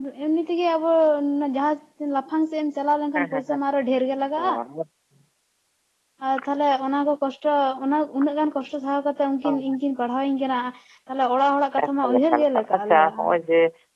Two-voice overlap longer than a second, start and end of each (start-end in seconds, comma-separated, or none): 11.8-13.2